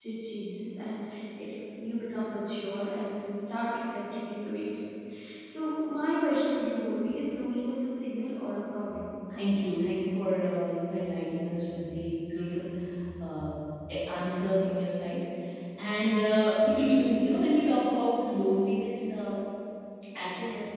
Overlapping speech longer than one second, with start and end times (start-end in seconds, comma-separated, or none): none